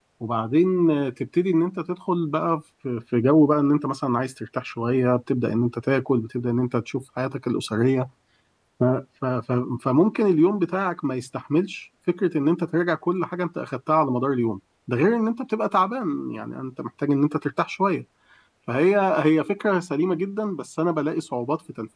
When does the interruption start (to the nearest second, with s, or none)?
none